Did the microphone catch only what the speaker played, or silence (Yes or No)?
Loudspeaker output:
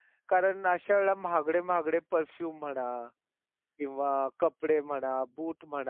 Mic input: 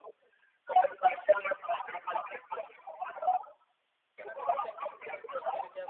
No